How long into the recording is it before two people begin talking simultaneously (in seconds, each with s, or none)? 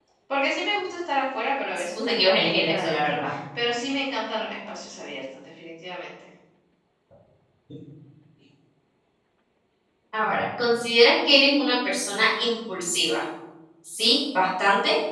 1.9 s